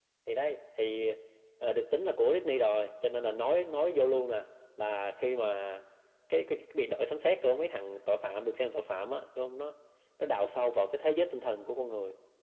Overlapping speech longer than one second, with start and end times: none

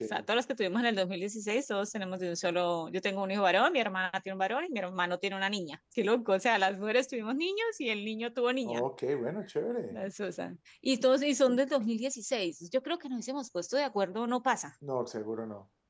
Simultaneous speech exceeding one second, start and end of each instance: none

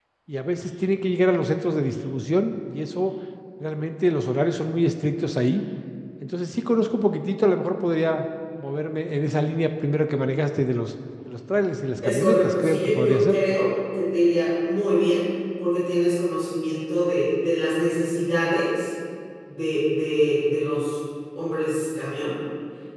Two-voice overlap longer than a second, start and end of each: 12.0-13.4

